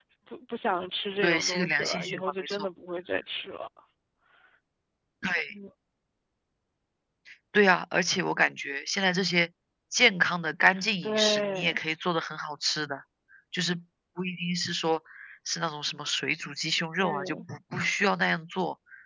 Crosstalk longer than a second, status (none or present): present